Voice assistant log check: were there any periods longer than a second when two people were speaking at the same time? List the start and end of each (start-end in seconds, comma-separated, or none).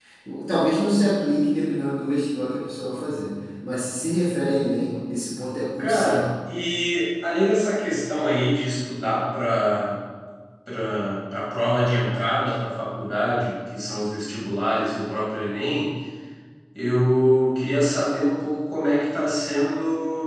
none